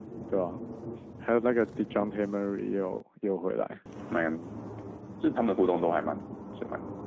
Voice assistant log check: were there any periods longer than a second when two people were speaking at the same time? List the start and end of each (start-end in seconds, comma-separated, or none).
none